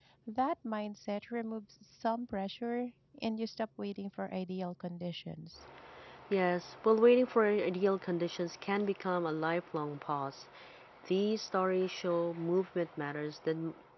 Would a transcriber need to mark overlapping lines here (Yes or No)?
No